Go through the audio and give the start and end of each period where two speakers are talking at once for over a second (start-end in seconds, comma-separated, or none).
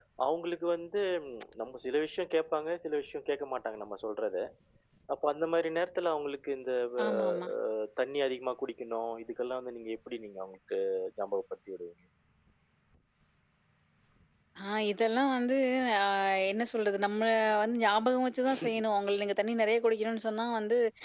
none